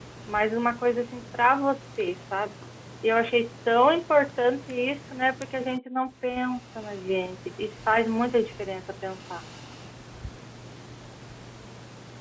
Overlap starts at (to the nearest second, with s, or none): none